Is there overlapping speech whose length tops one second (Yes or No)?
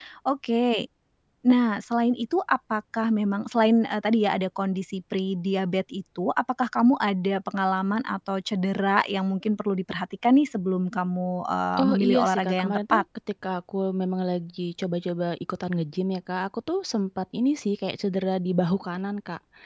Yes